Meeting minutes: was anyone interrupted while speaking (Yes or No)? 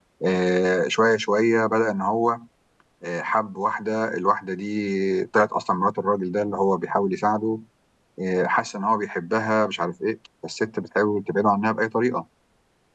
No